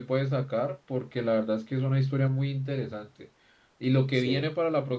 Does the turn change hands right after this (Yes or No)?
No